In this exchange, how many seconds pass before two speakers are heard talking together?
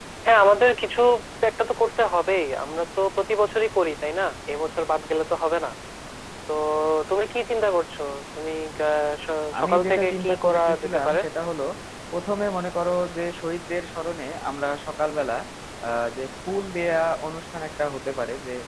9.6 s

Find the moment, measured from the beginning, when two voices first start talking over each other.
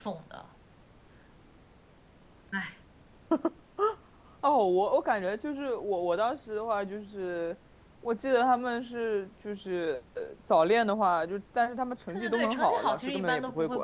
12.1 s

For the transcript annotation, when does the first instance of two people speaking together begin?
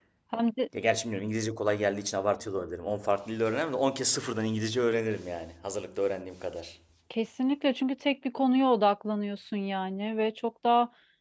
none

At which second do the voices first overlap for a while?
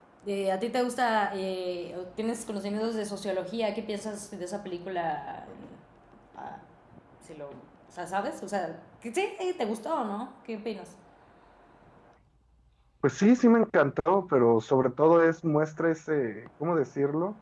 none

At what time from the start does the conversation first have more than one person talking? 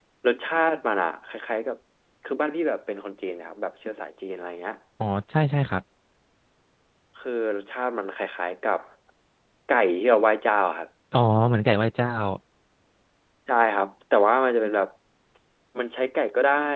none

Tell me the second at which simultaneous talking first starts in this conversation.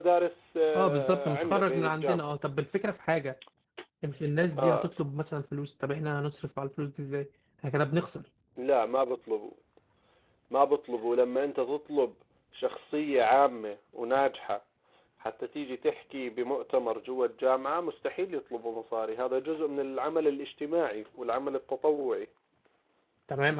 0.7 s

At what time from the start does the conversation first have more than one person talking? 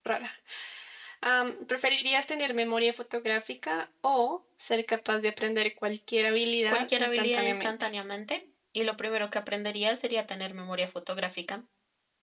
6.7 s

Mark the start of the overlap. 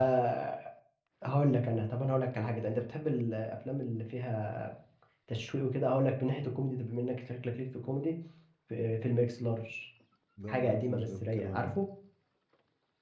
10.5 s

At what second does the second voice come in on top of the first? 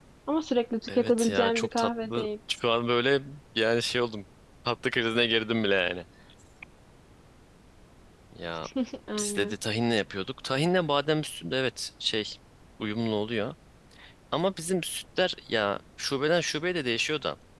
0.9 s

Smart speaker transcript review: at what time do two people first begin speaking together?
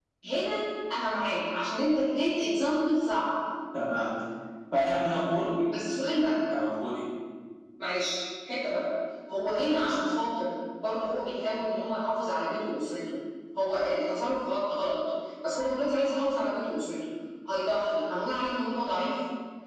none

